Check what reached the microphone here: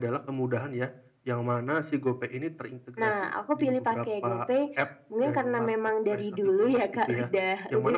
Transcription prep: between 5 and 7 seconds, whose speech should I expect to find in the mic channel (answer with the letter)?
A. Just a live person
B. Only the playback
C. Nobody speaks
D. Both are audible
B